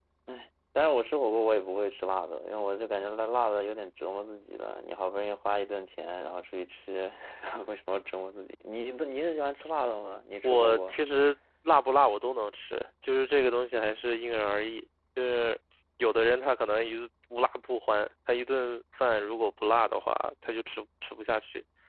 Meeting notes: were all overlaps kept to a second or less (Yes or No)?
Yes